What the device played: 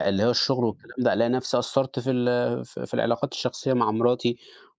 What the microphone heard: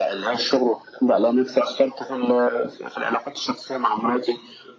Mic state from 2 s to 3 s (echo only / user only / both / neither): echo only